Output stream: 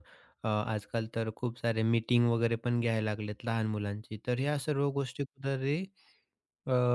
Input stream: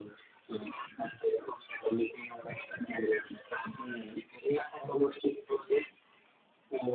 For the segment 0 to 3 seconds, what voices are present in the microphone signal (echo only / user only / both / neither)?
echo only